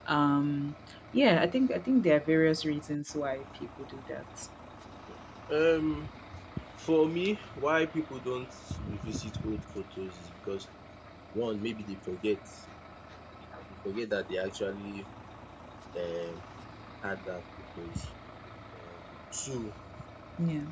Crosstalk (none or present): none